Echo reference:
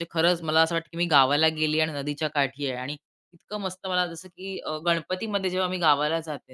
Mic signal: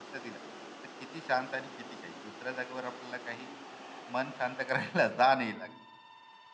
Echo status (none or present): none